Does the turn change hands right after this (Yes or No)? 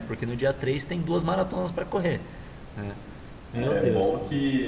Yes